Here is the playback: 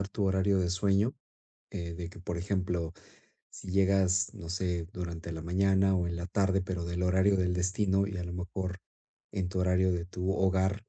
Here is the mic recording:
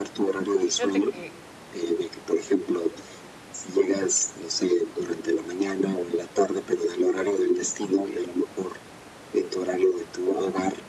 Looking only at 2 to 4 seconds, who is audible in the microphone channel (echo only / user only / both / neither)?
echo only